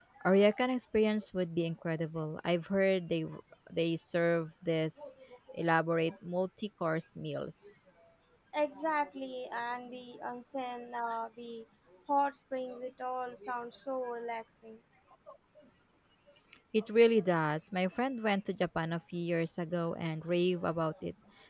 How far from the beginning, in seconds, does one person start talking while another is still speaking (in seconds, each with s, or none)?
none